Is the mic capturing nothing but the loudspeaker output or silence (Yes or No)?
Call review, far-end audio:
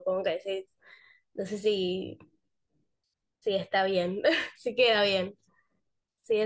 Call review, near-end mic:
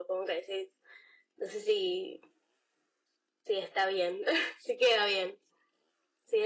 Yes